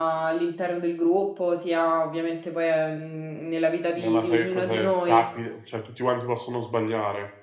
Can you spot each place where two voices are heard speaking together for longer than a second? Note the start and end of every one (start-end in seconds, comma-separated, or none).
4.0-5.2